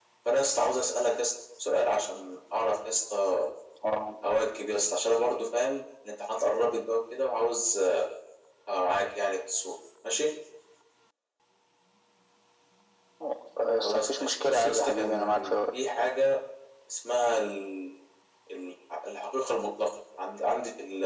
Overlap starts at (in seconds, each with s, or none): 13.8 s